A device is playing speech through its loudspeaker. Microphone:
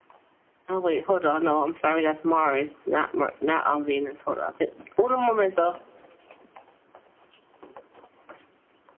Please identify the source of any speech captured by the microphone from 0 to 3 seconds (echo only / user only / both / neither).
echo only